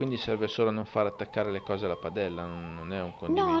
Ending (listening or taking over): taking over